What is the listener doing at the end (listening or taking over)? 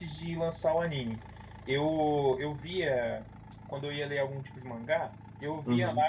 listening